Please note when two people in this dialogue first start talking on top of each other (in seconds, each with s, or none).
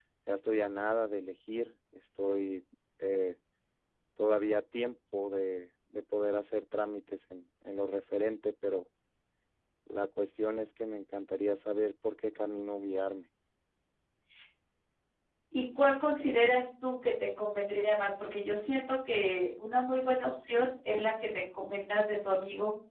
none